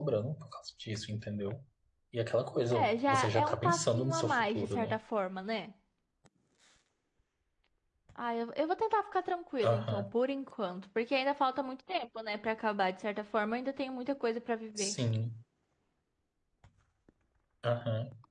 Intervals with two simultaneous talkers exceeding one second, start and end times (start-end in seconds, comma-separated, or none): 2.7-5.0